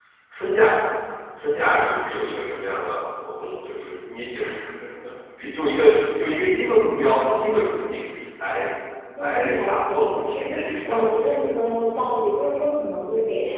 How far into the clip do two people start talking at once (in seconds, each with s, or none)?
9.2 s